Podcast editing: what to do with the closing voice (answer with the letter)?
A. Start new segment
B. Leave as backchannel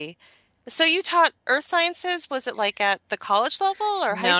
A